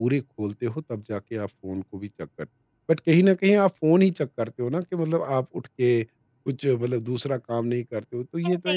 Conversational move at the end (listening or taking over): taking over